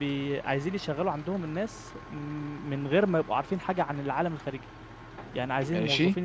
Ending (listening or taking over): listening